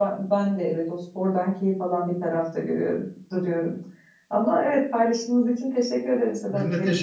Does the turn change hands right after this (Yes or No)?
Yes